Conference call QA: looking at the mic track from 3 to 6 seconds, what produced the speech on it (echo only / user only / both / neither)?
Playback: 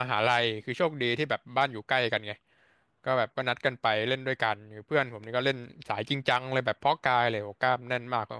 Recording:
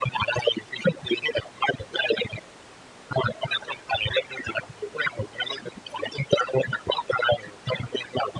echo only